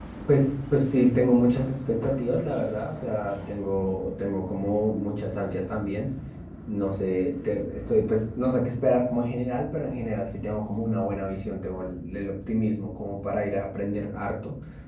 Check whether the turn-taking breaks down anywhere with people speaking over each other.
No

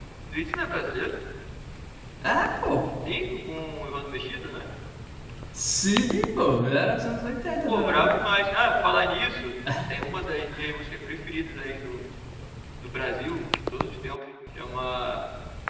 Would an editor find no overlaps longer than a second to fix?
Yes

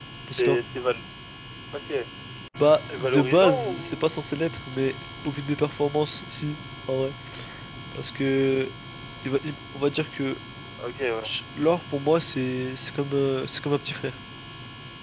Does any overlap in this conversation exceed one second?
Yes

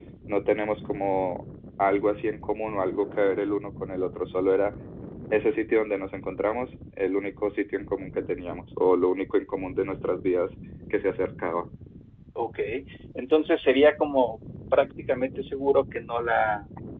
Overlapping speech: No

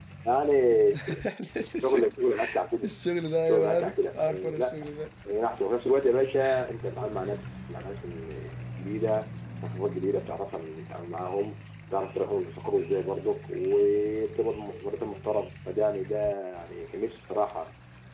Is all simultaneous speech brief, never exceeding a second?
No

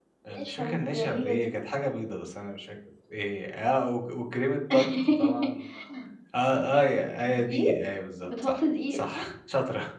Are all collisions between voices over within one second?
No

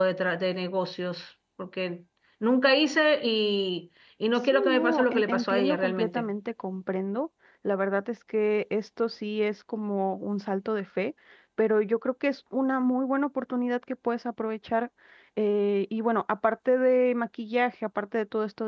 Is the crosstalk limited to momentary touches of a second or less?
No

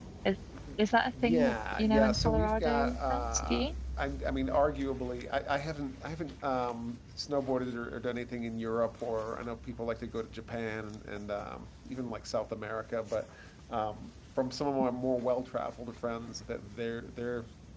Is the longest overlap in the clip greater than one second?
Yes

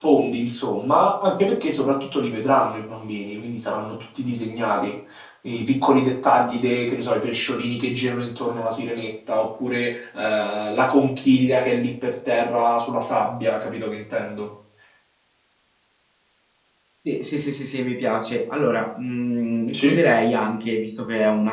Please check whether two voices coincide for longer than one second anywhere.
No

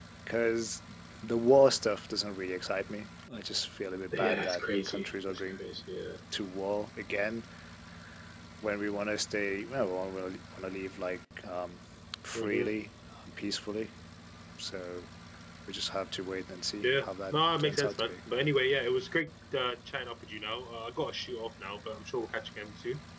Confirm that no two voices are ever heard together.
No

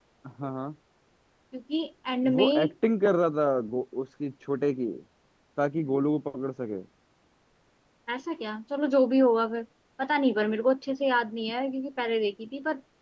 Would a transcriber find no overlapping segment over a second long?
Yes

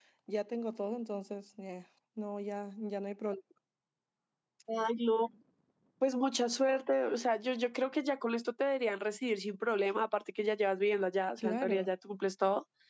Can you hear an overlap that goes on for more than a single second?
No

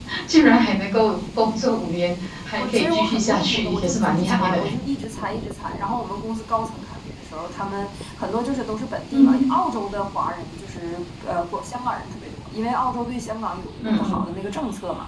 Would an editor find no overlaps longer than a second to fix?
No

